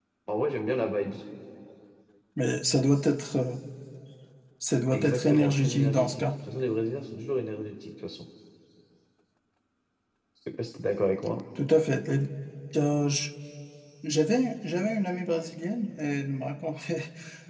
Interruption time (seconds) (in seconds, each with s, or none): 4.9 s